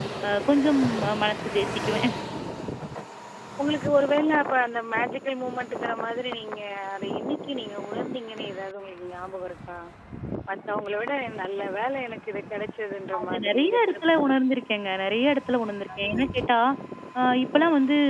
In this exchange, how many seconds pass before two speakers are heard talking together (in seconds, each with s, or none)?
13.2 s